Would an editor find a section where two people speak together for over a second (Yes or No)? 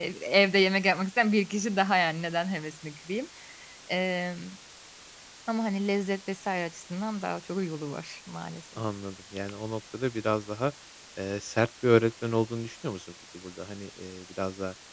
No